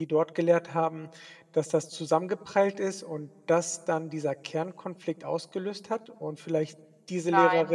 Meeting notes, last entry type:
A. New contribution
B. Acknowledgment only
A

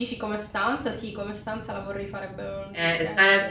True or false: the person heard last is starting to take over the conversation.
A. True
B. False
A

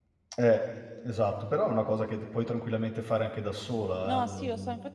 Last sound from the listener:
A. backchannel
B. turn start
B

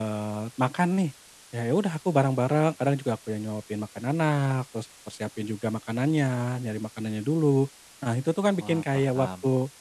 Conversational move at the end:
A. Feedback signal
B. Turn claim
A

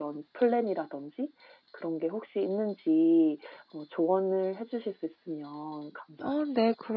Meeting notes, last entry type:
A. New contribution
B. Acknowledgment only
A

